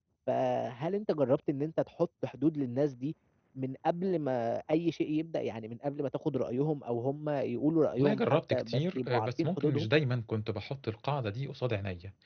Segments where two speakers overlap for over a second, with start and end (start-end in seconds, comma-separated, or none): 8.0-9.9